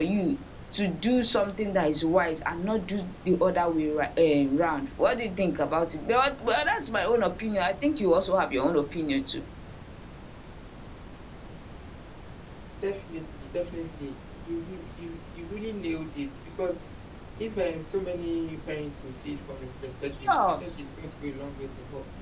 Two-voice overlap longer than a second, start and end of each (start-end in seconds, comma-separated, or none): none